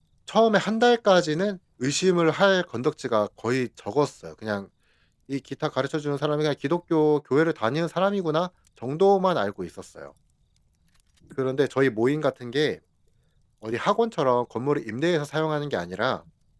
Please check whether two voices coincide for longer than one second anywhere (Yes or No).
No